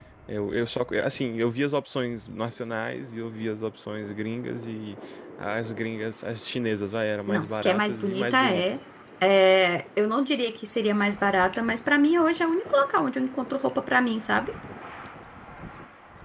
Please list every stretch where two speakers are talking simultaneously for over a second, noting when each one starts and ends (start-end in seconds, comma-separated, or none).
7.3-8.7